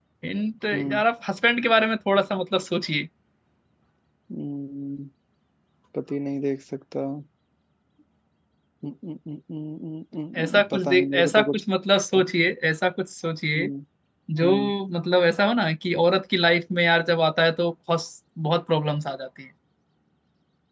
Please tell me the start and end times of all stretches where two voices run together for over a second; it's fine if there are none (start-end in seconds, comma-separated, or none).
10.4-11.6